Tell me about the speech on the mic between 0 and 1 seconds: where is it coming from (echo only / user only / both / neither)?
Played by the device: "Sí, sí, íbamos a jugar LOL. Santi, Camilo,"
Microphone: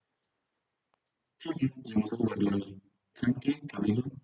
neither